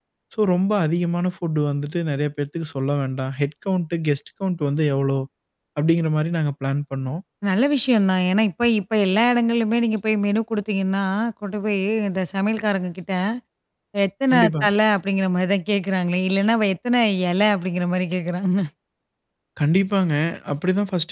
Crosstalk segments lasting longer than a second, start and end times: none

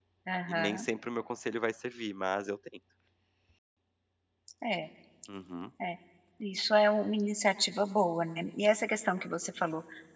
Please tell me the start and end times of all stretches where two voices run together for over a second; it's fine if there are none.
none

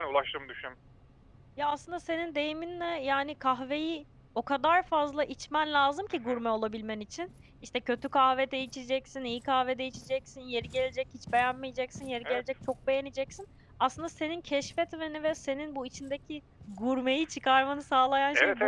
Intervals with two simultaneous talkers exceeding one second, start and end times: none

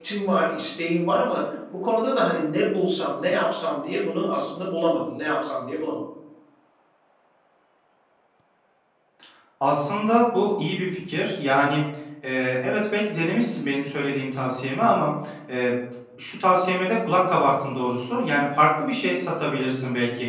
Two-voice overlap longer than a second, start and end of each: none

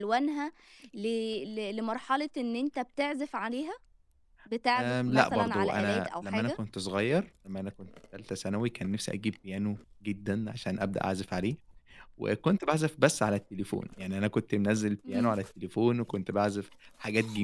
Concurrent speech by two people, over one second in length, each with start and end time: 4.8-6.5

